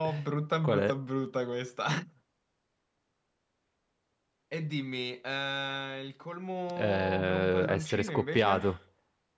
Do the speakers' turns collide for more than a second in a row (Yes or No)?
Yes